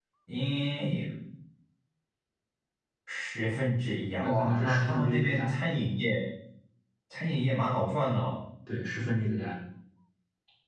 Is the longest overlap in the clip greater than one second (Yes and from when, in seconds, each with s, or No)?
Yes, from 4.2 s